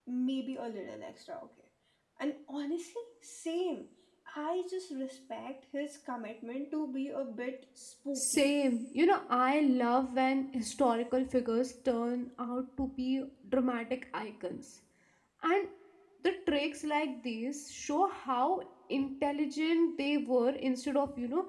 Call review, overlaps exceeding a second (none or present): none